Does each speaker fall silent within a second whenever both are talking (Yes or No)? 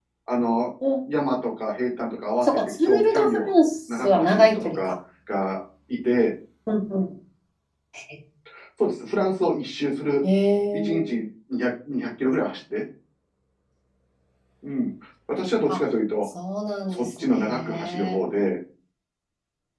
No